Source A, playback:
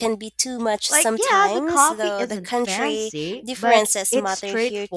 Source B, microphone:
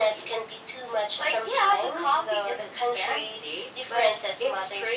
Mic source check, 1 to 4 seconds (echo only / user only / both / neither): echo only